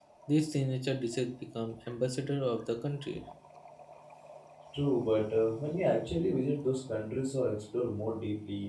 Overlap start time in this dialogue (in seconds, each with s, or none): none